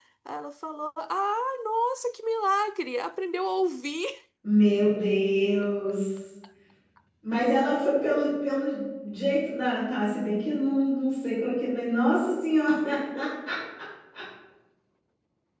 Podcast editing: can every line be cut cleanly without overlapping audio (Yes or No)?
Yes